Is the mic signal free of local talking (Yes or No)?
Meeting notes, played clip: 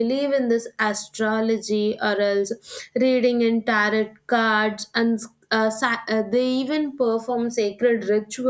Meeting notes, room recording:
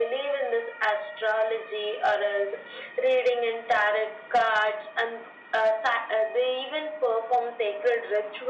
Yes